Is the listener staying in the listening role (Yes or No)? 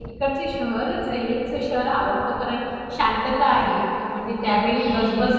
Yes